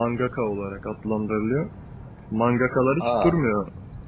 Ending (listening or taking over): listening